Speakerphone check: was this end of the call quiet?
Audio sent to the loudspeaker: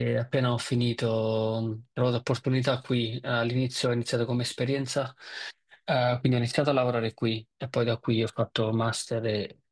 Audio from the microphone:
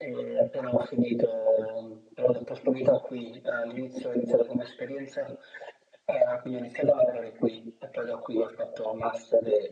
Yes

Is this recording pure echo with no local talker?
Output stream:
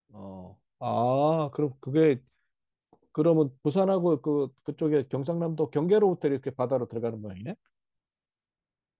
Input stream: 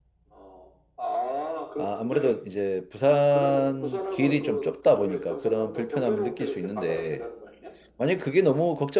No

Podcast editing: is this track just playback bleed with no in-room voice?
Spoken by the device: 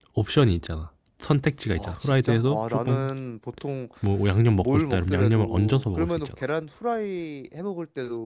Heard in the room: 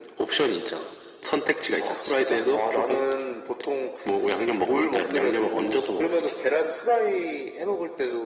Yes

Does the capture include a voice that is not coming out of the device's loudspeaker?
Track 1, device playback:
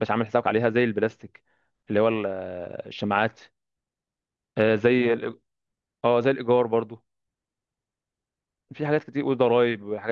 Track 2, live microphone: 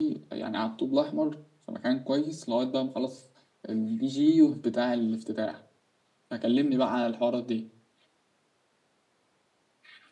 Yes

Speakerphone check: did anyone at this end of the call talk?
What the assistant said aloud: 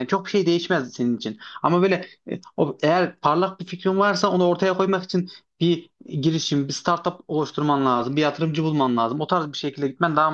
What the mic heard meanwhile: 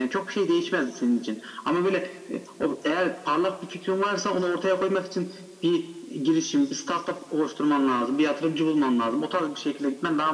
No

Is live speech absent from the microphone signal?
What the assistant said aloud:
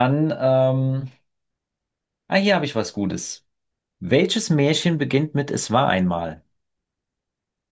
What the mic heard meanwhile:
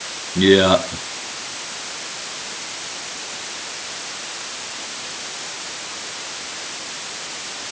No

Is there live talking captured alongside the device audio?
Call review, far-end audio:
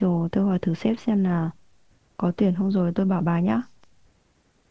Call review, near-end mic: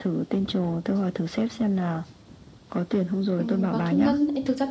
Yes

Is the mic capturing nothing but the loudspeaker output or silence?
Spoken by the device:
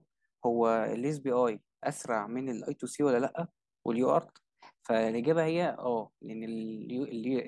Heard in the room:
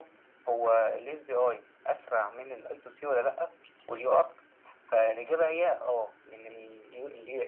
Yes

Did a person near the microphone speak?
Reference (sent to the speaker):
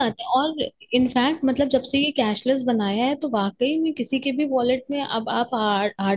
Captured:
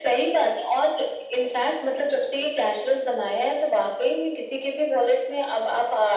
No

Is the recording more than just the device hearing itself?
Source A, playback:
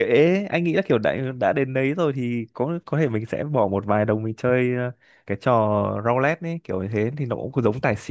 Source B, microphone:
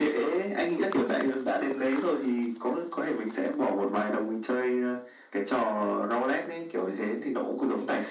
No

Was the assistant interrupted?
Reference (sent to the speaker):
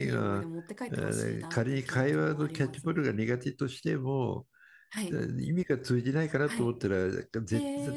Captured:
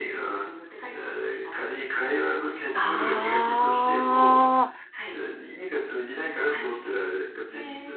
Yes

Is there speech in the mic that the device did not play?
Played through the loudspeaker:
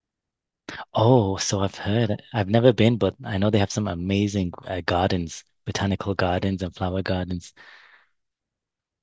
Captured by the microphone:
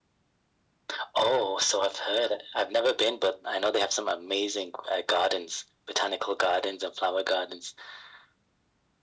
No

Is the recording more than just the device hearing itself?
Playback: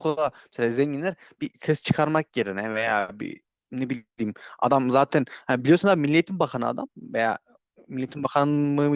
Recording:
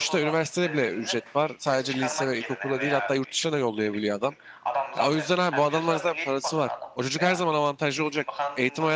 Yes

